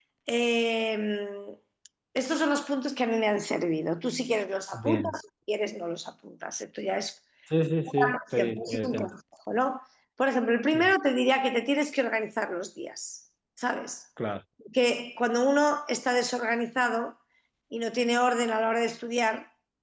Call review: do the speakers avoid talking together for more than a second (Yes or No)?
No